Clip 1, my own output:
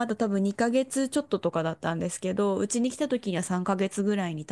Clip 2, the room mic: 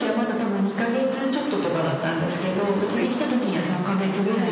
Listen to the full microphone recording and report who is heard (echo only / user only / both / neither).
both